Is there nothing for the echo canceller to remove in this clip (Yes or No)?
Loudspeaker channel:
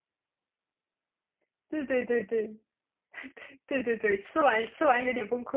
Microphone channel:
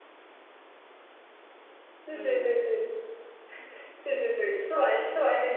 No